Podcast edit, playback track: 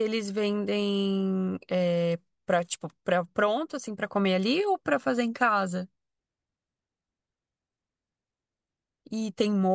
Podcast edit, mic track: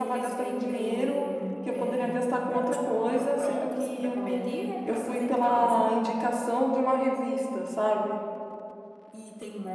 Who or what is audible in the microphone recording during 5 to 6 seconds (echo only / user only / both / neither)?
both